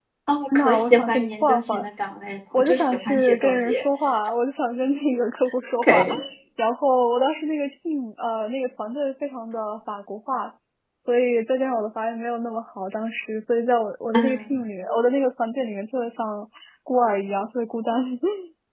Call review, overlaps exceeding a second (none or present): present